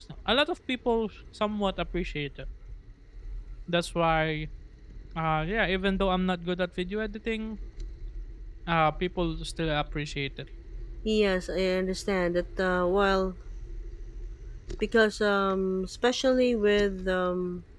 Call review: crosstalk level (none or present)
none